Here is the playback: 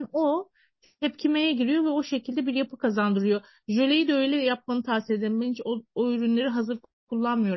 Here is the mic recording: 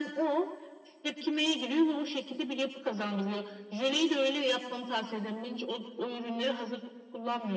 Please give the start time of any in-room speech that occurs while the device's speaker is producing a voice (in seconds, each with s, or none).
none